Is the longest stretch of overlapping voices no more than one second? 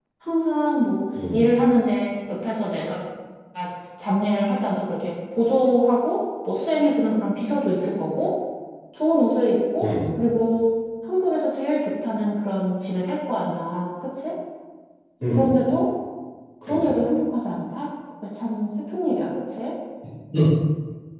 Yes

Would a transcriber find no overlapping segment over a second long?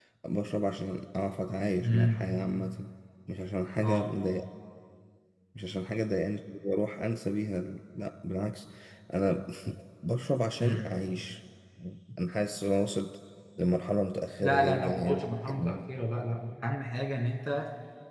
No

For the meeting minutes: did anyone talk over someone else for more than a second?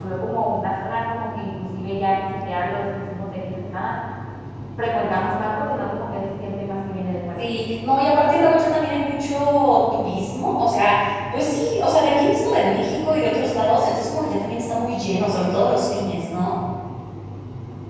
No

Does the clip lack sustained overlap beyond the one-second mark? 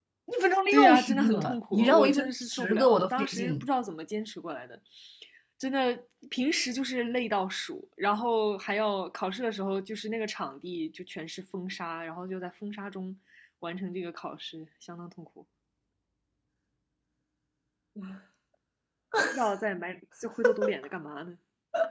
No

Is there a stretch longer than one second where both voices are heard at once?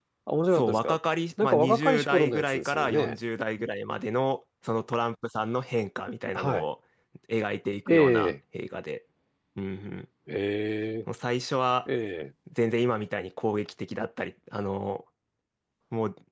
Yes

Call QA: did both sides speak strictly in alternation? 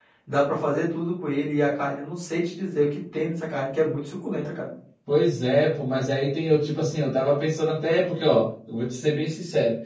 Yes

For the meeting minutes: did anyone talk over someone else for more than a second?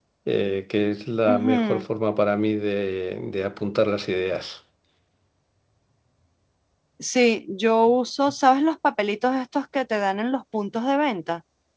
No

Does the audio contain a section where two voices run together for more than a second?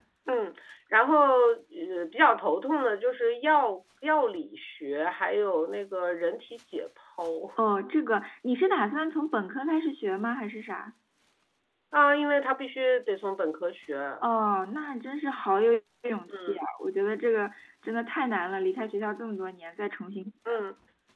No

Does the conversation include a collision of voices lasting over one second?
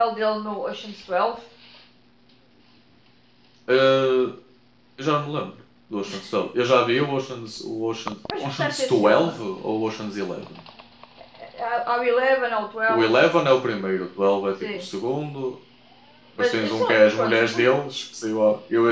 Yes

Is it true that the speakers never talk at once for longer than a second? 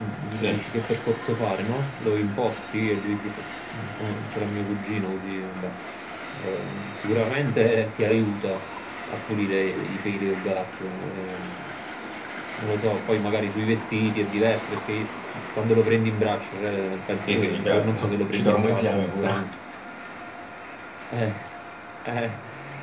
No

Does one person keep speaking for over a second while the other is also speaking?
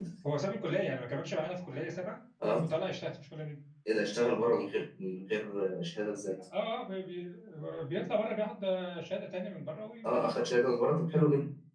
No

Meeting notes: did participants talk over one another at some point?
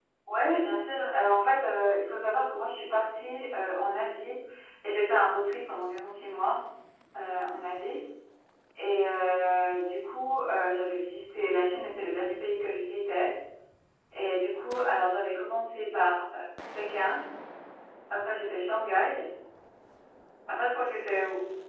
No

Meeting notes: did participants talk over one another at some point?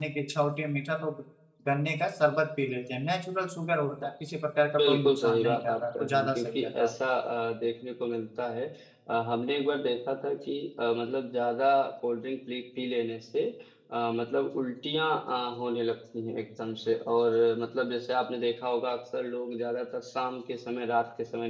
Yes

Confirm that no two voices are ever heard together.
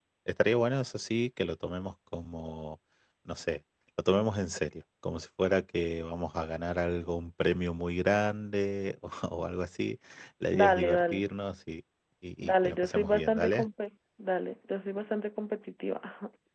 No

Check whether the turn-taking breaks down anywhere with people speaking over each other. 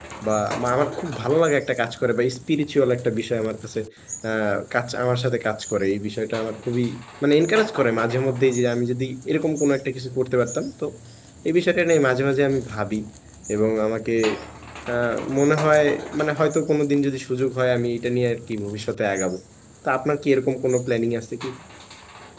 No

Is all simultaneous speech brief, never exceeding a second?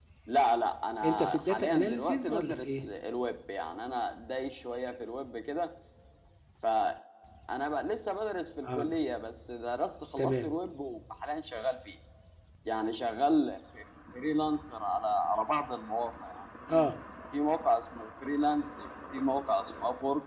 No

